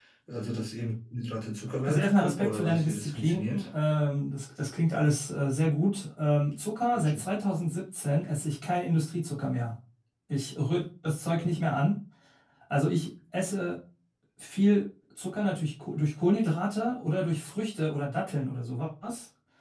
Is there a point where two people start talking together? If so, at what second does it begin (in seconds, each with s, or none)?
1.9 s